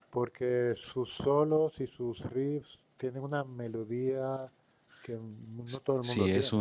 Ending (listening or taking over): taking over